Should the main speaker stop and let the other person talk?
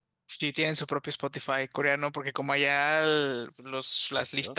No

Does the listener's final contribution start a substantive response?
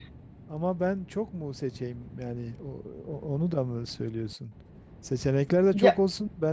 No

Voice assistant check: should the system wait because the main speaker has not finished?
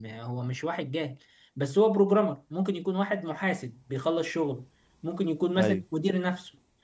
Yes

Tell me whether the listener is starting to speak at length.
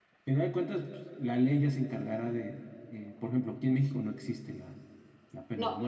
Yes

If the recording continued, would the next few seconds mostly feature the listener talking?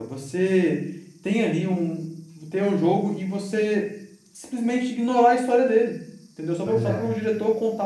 No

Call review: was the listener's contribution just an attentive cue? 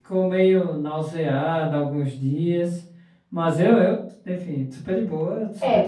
No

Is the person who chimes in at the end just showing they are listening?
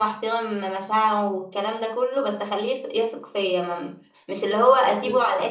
Yes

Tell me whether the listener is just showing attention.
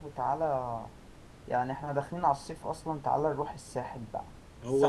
No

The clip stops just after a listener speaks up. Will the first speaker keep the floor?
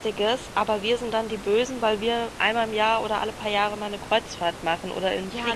No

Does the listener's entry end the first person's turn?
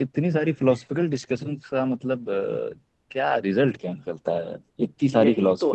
Yes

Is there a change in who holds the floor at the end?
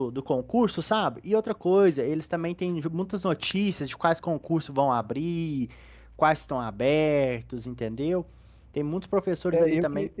Yes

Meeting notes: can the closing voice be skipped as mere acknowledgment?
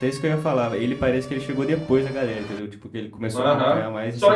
No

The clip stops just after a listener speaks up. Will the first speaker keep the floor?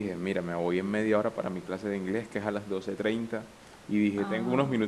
Yes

